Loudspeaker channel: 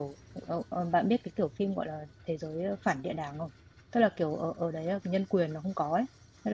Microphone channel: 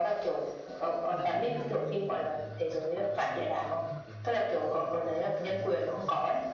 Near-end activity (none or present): present